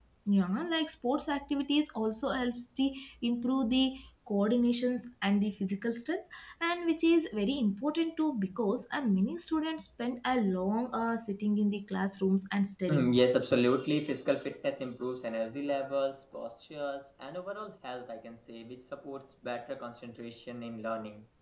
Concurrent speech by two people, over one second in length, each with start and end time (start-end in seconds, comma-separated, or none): none